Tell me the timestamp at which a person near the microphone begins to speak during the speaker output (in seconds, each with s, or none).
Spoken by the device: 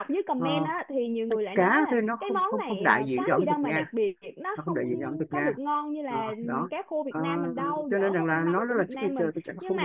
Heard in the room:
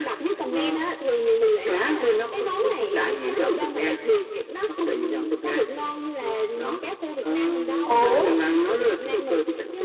7.8 s